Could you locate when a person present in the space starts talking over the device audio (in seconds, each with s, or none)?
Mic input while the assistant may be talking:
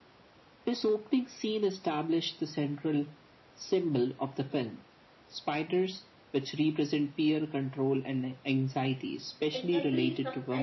9.5 s